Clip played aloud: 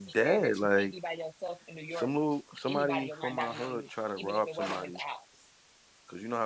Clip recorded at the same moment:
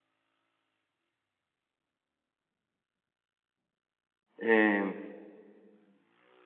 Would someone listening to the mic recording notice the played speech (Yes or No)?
No